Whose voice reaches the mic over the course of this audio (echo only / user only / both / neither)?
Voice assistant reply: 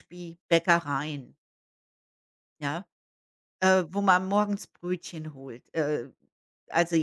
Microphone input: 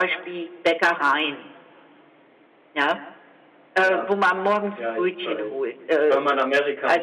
both